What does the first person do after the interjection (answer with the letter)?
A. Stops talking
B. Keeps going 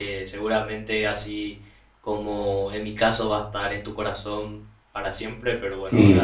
A